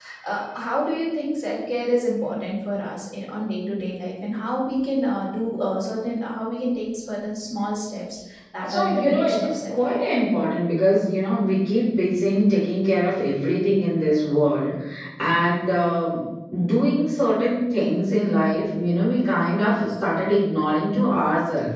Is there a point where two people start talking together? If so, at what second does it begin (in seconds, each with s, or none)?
8.7 s